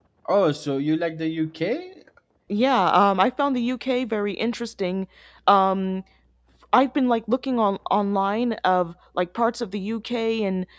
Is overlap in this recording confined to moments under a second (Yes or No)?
Yes